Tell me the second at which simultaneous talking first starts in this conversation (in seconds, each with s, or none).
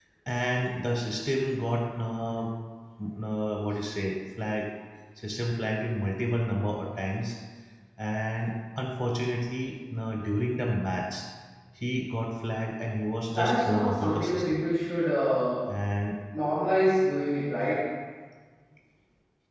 13.3 s